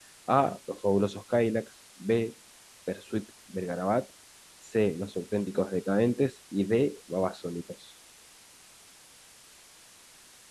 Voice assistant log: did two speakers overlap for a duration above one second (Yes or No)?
No